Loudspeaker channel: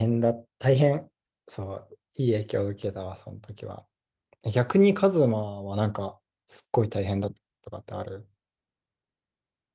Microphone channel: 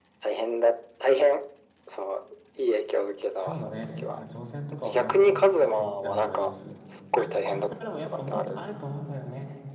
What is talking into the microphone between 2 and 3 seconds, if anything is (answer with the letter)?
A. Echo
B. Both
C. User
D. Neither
A